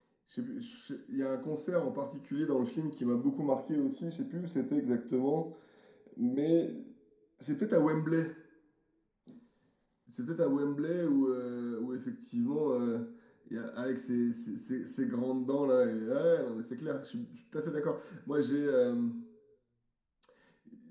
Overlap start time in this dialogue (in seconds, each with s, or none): none